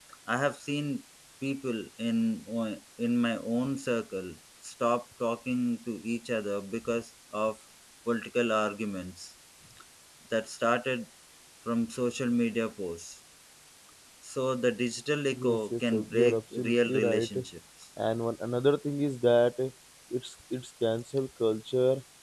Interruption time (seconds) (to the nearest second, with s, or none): 15 s